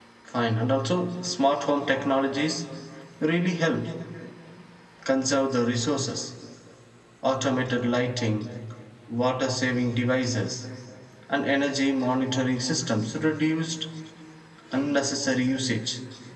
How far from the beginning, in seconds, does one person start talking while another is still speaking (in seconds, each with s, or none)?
none